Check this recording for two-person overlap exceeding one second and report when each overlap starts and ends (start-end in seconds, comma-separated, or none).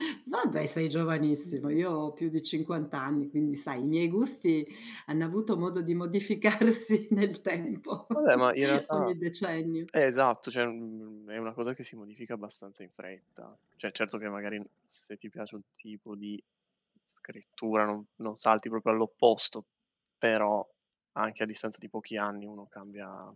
none